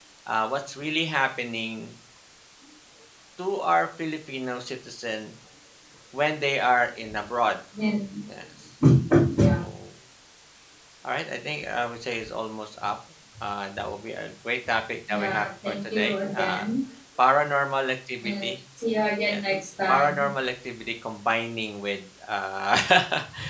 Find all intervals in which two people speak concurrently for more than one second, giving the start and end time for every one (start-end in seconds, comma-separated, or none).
15.1-16.6